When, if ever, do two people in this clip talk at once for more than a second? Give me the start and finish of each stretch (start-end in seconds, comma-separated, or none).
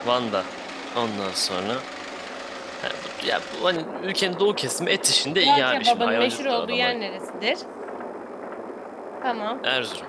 5.4-7.0